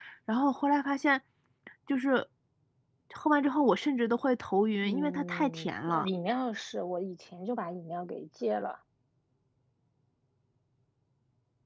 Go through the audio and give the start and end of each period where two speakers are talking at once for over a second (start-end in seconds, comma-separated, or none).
4.8-6.1